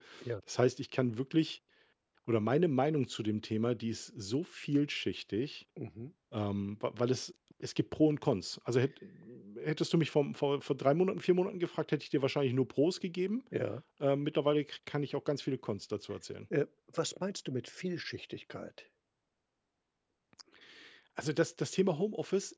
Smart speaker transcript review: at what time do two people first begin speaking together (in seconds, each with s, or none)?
none